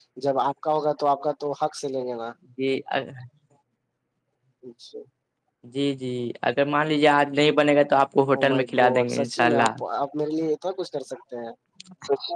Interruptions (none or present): present